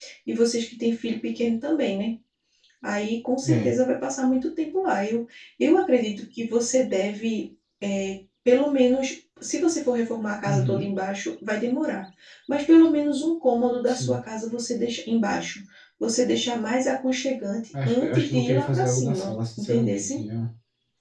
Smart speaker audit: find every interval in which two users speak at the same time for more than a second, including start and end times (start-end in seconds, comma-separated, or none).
17.9-20.1